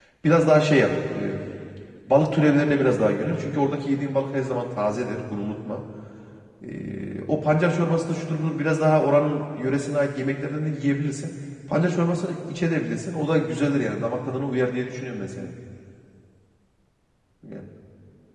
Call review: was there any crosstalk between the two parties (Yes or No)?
No